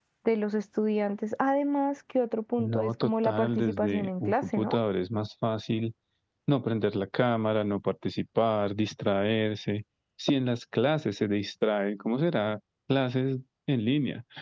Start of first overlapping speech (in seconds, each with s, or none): 2.6 s